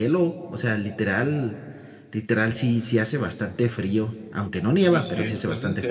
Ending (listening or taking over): taking over